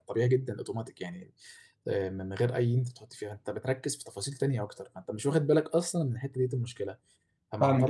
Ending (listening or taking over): listening